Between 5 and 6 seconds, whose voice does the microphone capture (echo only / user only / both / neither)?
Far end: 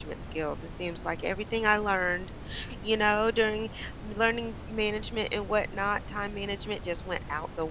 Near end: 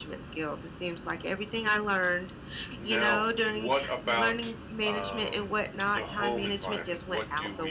both